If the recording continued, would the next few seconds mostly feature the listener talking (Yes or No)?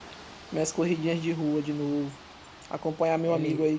No